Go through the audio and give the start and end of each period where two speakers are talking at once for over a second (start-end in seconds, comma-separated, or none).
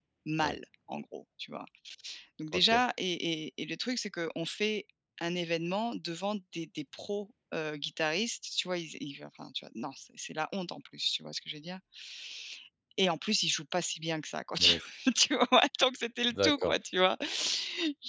none